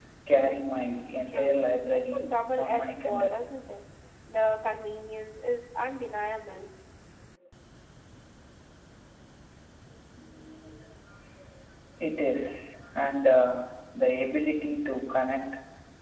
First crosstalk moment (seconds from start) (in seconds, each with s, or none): 1.3 s